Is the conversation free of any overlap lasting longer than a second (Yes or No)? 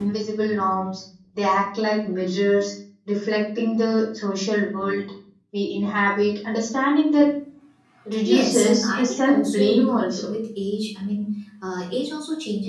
No